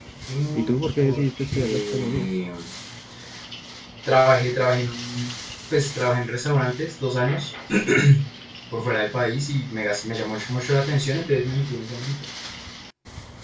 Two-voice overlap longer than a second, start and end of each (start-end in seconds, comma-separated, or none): 0.6-2.3